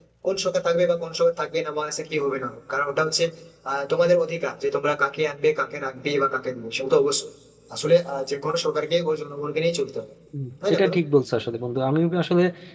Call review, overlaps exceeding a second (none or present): none